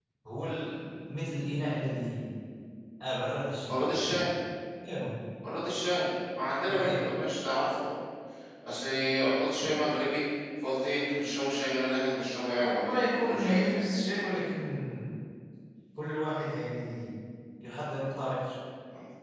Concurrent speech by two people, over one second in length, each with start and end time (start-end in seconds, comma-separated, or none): 12.6-13.9